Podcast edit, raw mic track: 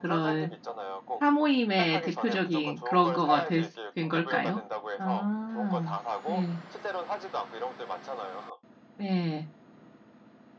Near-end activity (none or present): present